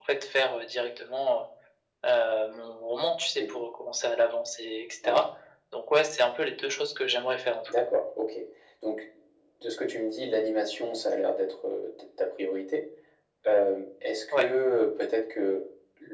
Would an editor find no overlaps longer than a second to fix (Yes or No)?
Yes